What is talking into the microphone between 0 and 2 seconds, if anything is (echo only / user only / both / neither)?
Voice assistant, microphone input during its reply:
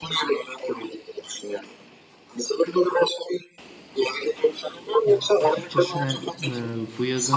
echo only